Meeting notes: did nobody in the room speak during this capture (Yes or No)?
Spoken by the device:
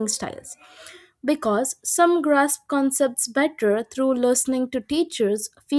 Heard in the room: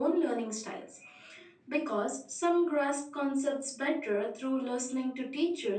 Yes